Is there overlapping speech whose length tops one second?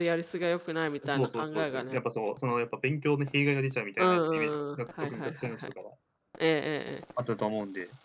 Yes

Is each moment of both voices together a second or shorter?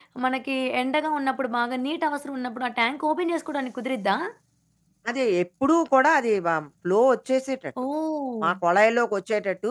Yes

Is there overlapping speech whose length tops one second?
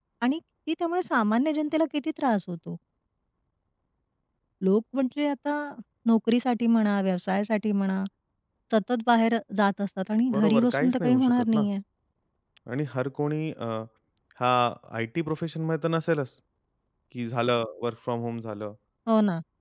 Yes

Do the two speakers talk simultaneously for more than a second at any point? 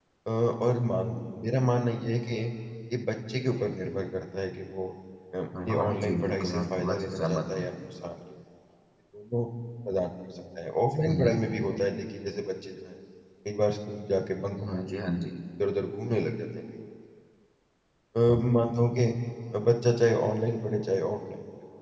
Yes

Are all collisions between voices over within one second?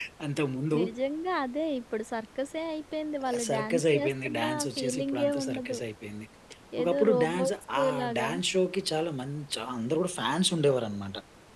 No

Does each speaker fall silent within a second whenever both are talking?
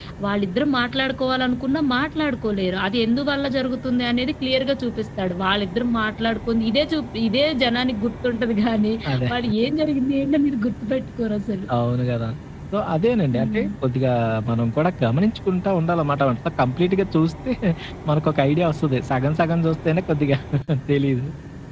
Yes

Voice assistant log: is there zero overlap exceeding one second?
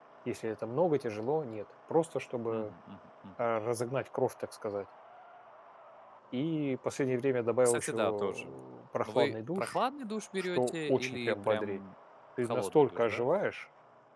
No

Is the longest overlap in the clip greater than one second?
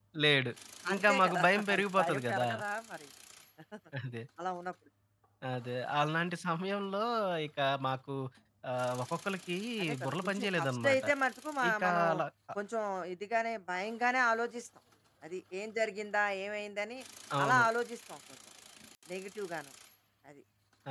Yes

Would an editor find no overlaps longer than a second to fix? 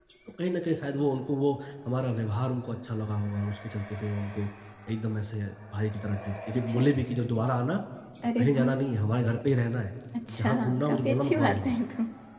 No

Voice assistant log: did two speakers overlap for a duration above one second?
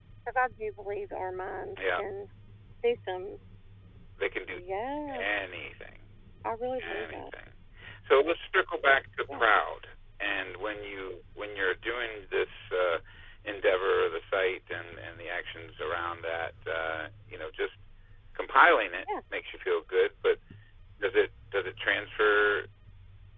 No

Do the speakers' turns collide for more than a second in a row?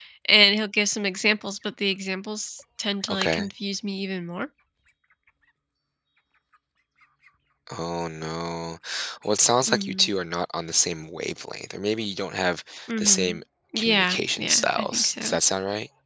Yes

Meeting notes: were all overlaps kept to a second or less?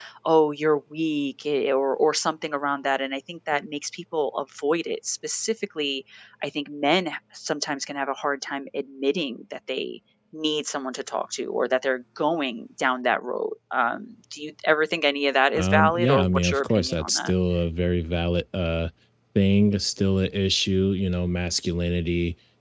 No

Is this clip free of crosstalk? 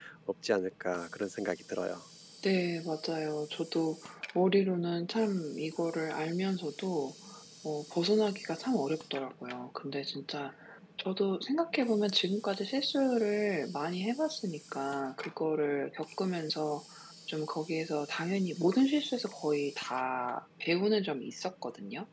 Yes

